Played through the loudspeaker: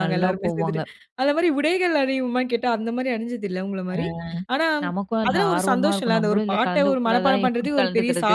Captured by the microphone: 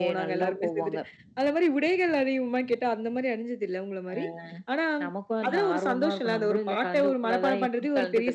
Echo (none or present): present